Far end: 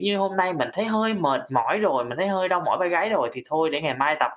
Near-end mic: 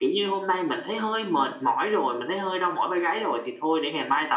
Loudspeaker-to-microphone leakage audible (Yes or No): Yes